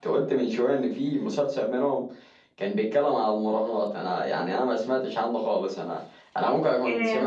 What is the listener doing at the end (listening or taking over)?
listening